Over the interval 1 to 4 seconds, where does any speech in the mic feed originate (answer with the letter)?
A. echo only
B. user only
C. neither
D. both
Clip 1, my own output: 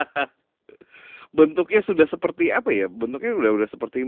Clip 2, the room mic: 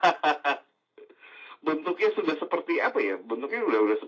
A